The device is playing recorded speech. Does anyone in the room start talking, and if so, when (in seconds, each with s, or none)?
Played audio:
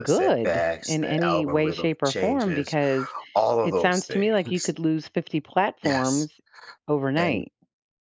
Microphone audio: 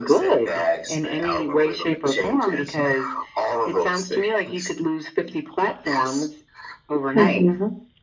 7.1 s